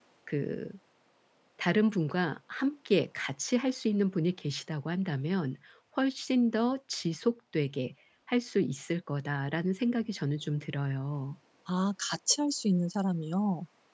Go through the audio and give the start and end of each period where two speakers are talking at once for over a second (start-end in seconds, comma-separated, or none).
none